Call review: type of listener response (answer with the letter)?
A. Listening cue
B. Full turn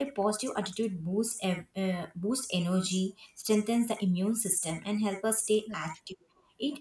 A